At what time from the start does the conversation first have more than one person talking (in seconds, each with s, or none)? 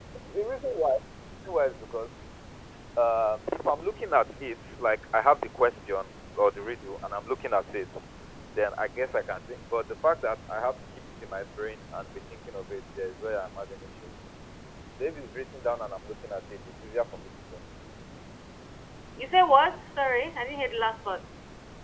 none